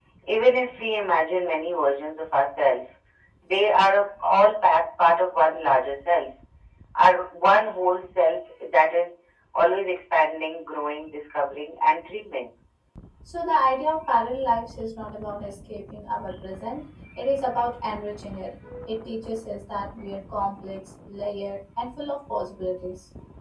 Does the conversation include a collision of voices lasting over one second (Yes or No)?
No